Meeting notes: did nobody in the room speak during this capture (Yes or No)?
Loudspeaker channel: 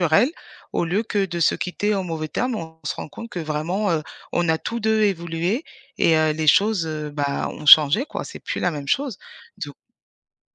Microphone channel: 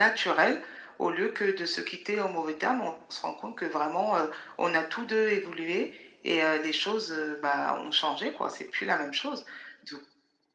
Yes